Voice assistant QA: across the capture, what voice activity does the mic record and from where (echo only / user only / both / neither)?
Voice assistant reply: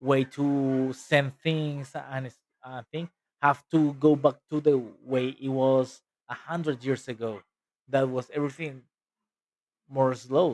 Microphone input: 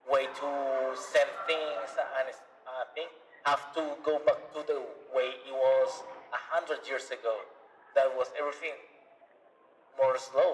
echo only